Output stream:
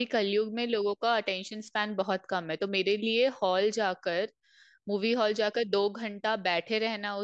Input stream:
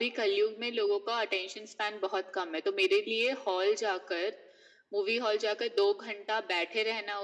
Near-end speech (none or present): none